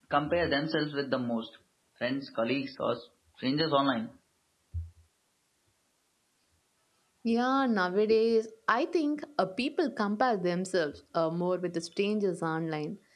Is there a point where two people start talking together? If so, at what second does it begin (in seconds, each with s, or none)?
none